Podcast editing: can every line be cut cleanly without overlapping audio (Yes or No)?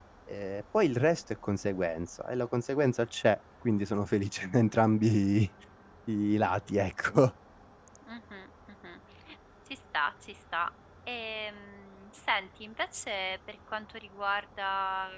Yes